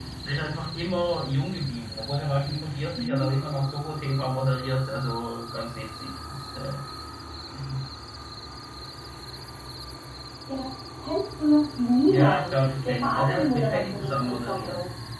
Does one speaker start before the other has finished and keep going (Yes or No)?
Yes